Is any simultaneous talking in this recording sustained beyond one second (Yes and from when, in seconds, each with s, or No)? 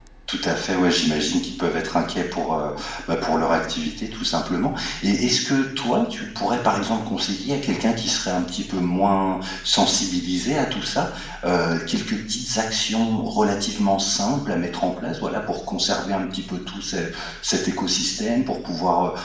No